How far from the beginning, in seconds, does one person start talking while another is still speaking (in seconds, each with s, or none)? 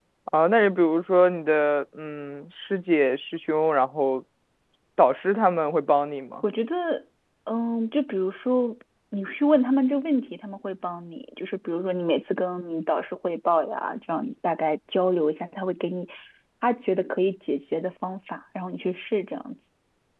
none